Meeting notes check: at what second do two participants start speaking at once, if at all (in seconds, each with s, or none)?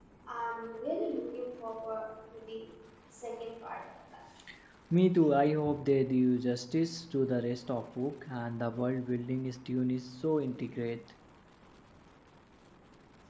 none